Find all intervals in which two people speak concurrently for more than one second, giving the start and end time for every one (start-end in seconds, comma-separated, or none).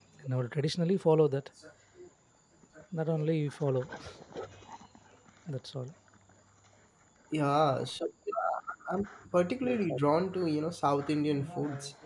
none